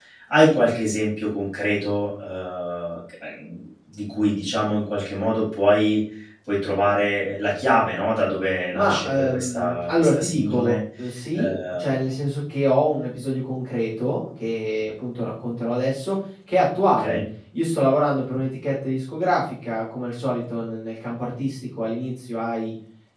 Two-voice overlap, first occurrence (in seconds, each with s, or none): 8.7 s